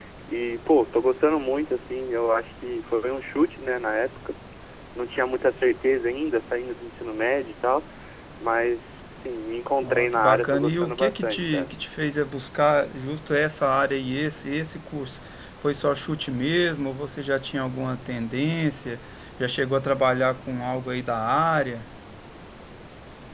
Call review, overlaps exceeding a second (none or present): present